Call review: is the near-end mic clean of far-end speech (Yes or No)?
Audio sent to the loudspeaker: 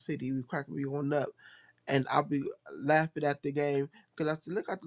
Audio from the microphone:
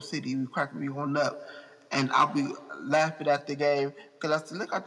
No